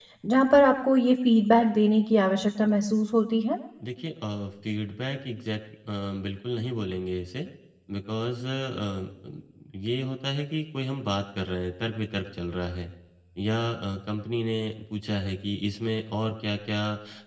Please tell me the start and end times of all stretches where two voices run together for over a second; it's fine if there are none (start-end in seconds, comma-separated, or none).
none